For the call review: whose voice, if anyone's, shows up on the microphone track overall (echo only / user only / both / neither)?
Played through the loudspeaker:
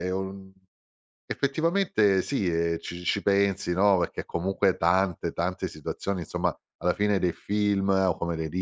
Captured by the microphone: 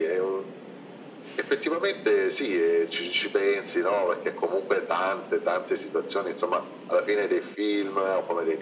echo only